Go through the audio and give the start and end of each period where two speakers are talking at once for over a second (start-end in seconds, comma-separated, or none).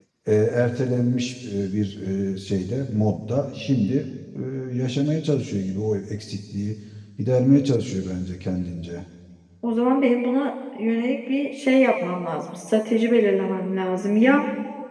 none